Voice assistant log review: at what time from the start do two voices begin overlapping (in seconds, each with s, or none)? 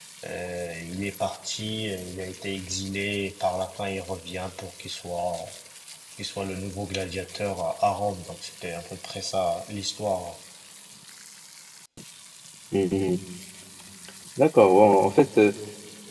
none